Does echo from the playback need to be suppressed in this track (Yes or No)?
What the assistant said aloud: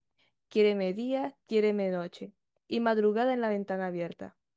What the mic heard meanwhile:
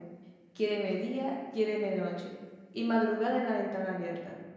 Yes